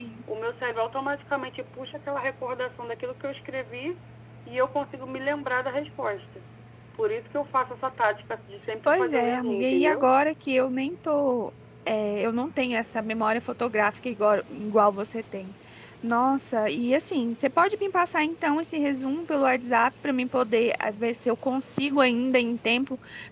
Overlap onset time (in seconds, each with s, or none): 8.8 s